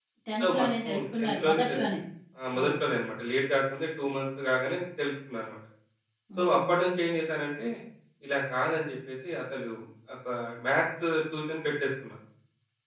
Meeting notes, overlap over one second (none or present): present